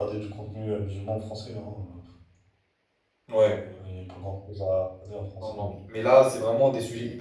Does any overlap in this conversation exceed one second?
No

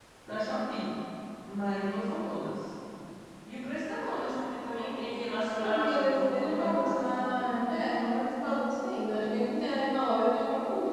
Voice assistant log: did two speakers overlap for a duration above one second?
Yes, from 5.5 s

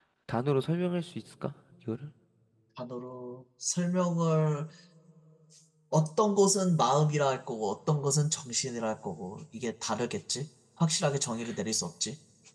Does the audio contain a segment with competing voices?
No

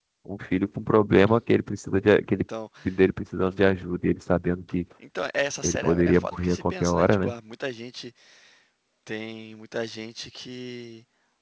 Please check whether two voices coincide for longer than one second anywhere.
Yes, from 5.6 s

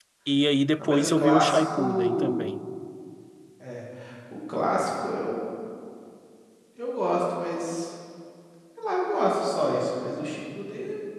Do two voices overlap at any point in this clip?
Yes, from 0.8 s

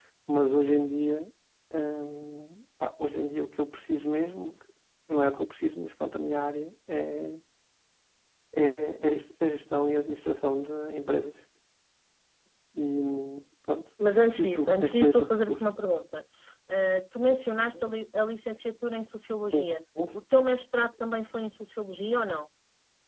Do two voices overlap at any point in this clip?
Yes, from 14.4 s

